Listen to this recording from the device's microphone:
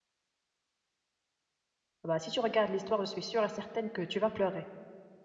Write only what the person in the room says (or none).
Bah, si tu regardes l'histoire, je suis sûre et certaine que tu vas pleurer.